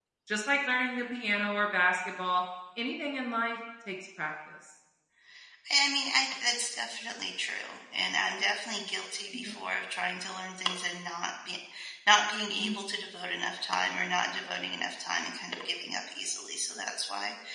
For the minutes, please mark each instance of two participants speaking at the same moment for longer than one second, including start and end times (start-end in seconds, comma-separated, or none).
none